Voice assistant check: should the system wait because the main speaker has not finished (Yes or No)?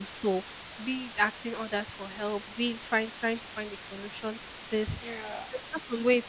Yes